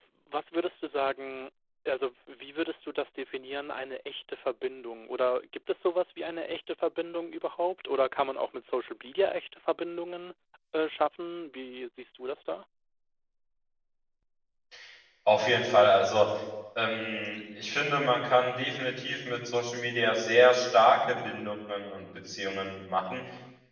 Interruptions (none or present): none